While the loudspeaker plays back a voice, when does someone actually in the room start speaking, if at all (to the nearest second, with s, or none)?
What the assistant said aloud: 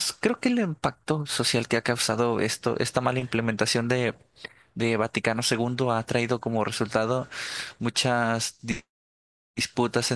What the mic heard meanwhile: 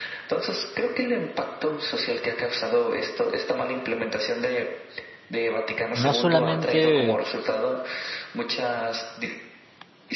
6 s